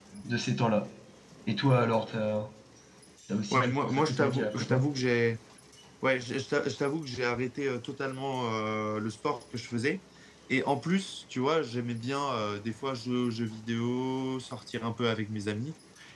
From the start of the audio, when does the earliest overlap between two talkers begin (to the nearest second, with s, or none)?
4 s